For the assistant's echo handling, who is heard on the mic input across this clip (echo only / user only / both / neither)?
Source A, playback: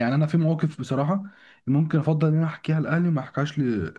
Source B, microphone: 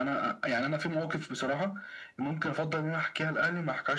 echo only